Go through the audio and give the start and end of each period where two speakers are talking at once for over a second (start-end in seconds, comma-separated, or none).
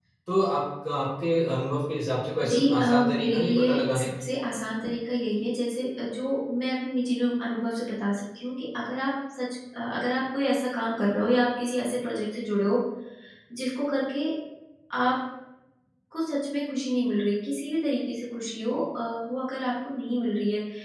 2.4-4.1